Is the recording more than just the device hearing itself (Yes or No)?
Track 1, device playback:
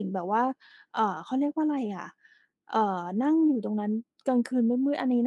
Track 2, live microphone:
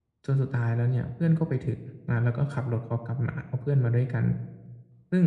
Yes